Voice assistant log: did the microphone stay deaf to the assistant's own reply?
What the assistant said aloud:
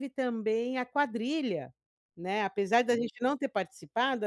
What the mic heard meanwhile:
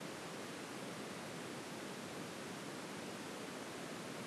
Yes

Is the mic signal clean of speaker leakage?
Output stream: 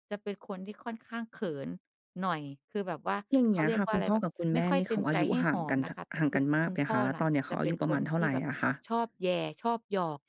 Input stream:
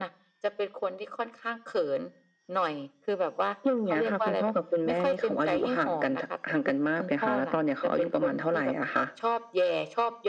No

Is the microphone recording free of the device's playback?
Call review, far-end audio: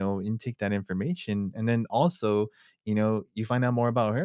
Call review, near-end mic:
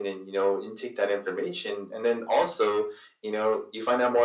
No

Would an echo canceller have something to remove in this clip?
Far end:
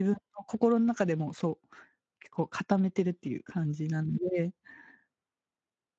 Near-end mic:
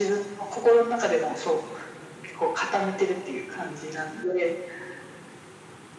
Yes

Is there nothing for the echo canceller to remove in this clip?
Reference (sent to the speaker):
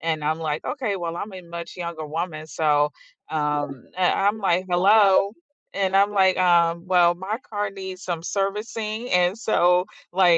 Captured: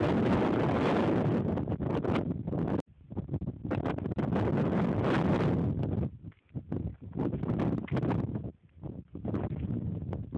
Yes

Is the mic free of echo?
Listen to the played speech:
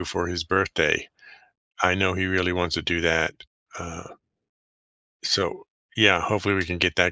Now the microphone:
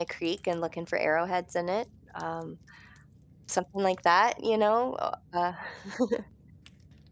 Yes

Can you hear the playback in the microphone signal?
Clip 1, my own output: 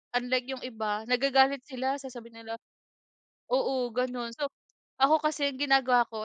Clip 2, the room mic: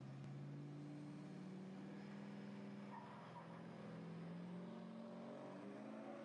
No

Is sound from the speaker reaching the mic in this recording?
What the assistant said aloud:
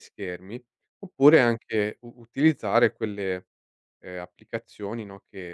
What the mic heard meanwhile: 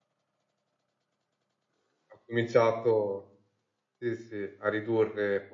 No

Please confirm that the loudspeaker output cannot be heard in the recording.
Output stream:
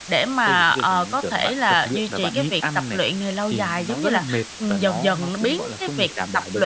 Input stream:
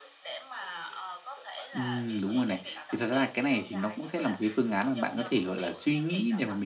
No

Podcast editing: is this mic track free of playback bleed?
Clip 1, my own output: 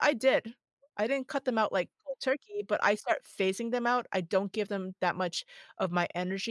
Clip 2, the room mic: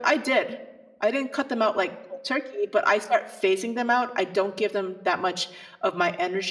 No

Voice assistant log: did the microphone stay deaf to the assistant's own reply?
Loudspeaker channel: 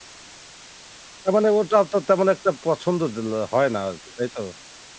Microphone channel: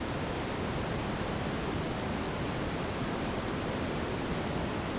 Yes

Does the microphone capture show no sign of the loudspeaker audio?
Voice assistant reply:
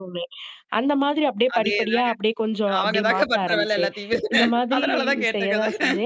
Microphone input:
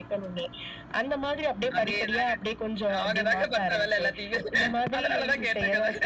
No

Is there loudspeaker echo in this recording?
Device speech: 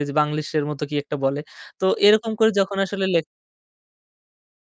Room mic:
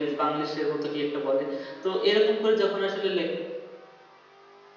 Yes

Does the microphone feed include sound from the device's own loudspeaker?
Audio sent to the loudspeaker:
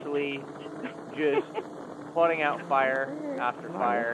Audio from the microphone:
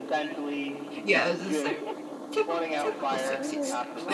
Yes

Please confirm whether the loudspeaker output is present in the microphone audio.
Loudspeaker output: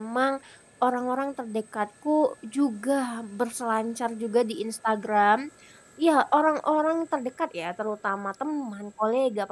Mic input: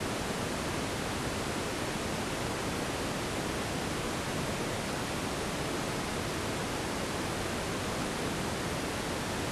No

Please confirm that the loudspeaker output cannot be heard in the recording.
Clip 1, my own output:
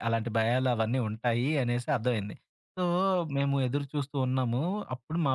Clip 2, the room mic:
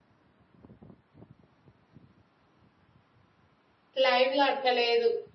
Yes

